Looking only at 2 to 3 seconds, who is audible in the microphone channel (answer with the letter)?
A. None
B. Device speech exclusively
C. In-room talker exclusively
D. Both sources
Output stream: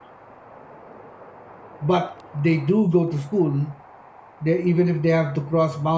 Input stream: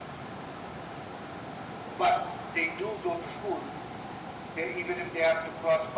B